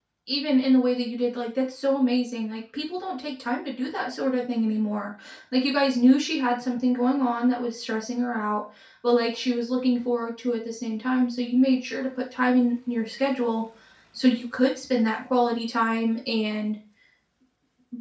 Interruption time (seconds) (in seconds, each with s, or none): none